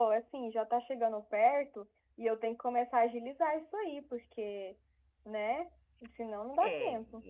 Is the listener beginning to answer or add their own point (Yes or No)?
Yes